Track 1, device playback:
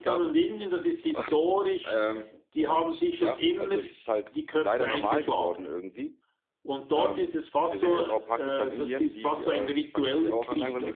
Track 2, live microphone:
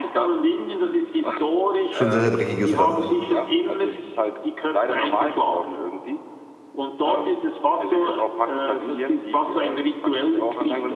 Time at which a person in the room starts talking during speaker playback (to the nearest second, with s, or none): 2 s